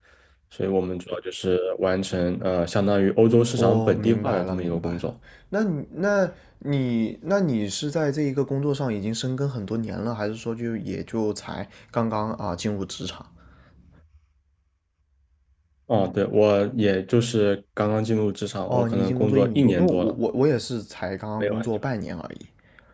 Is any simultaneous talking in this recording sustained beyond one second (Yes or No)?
Yes